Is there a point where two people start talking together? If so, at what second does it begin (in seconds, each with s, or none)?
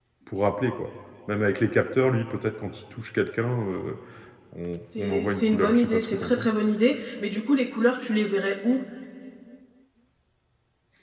5.0 s